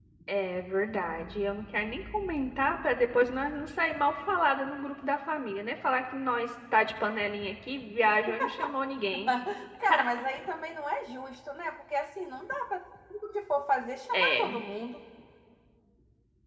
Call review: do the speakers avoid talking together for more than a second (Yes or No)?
Yes